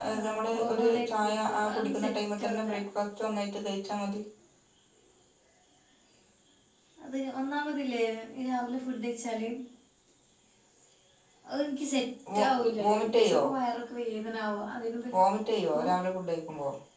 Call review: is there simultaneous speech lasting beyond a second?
Yes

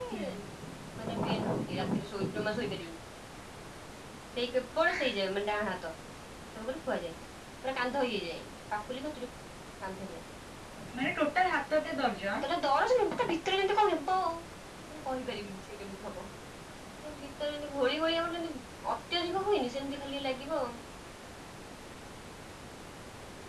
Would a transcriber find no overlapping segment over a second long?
Yes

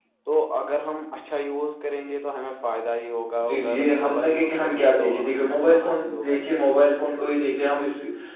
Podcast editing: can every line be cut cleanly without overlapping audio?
No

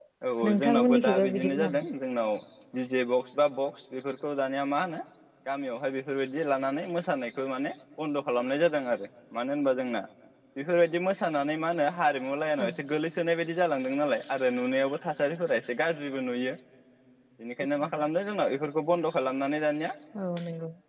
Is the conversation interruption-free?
No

